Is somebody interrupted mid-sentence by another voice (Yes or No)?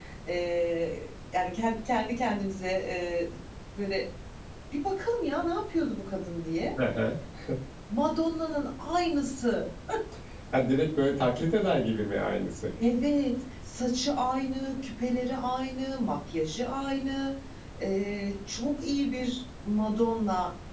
No